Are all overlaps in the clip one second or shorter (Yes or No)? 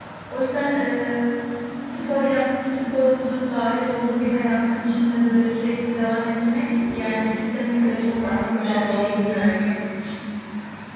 No